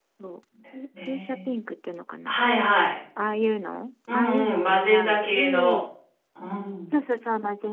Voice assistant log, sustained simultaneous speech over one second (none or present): present